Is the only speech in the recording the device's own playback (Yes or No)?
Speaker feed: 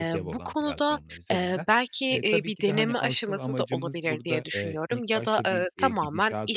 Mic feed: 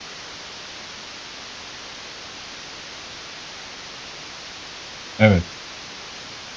No